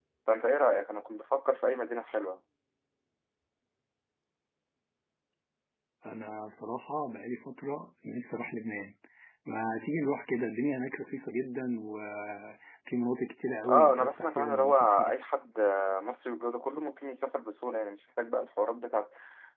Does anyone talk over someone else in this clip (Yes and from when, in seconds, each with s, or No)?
Yes, from 13.6 s